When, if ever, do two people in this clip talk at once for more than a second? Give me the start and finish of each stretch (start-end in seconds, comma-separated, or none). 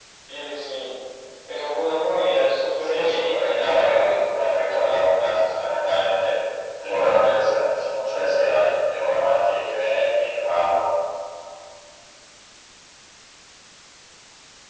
2.8-4.2